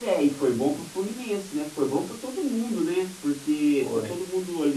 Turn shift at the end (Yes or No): No